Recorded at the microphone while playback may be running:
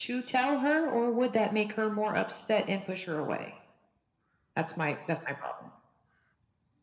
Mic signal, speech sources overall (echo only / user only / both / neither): echo only